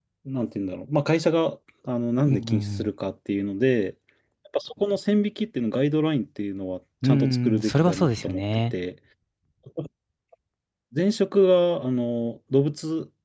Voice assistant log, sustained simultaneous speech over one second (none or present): present